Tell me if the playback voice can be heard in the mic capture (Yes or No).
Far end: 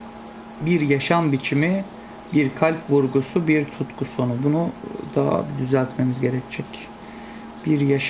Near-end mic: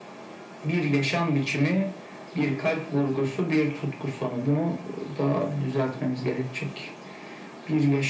Yes